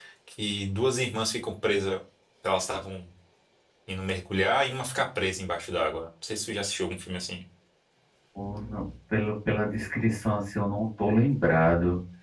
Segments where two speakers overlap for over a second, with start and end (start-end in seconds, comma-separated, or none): none